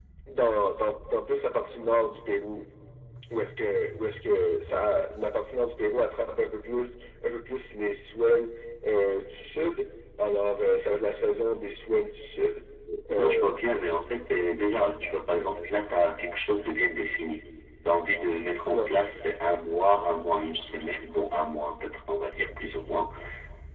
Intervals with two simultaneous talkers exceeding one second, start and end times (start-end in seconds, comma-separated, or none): none